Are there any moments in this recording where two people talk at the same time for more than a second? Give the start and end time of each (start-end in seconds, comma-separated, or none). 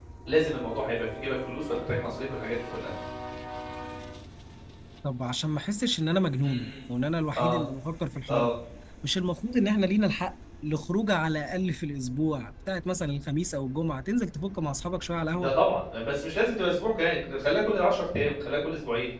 none